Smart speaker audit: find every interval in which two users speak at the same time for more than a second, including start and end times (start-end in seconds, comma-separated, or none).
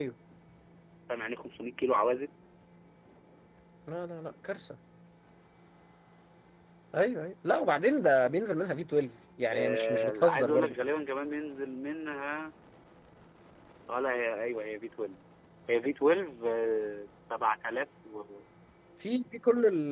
9.5-10.7